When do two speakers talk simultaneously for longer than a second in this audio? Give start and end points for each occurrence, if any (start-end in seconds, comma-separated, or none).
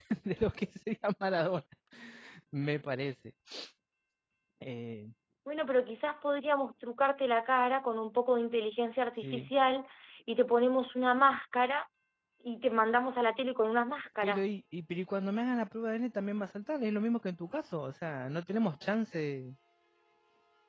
none